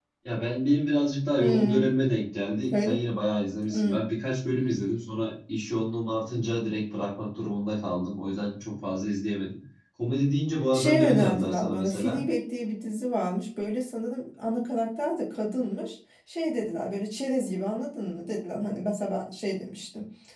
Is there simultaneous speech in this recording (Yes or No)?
Yes